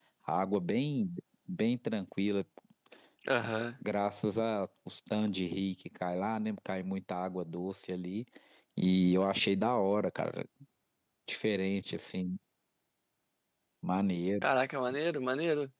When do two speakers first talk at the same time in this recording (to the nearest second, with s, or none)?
none